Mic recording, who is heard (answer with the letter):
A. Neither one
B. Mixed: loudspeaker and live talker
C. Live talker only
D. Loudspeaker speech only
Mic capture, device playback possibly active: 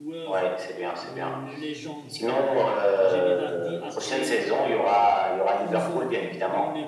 B